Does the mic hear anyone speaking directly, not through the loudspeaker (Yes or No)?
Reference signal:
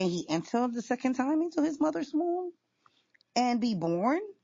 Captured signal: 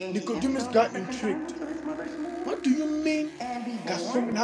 Yes